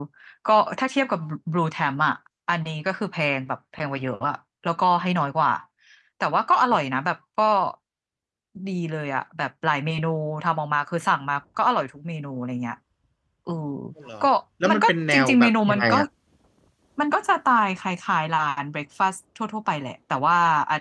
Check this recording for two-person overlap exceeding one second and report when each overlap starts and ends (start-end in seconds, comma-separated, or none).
14.7-15.9